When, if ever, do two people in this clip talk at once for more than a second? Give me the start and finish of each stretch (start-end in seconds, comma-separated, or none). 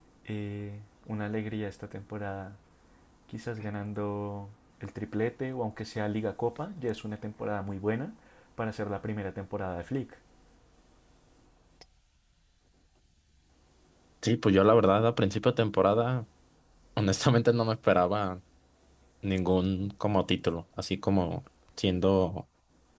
none